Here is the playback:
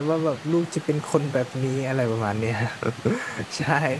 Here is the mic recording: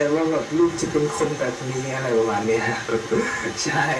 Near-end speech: none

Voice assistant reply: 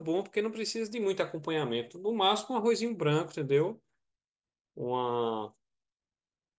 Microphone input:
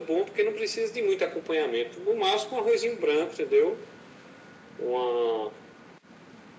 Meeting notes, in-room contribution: none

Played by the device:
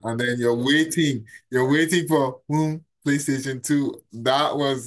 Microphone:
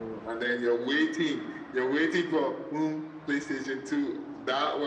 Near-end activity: none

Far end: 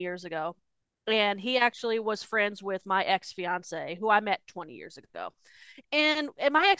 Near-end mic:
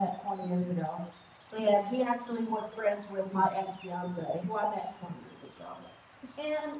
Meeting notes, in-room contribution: none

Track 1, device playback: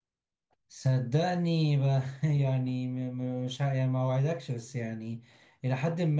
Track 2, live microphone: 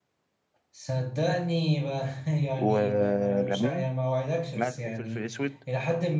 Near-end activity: present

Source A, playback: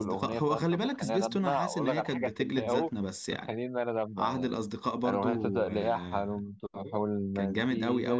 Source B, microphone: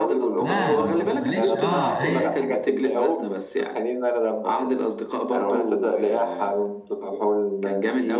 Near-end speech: present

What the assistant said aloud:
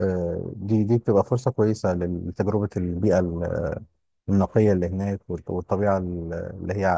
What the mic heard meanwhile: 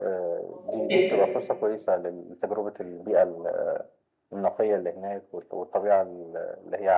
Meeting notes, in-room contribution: present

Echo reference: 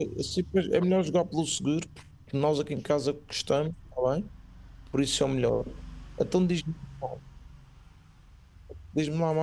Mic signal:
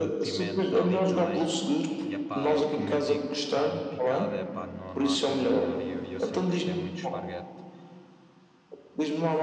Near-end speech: present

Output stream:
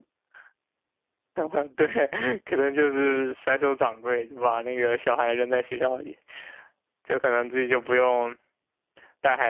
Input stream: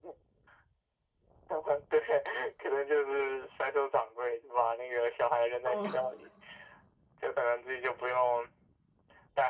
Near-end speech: present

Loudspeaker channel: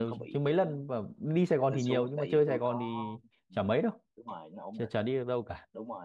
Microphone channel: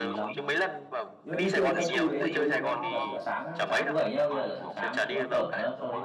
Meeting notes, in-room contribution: present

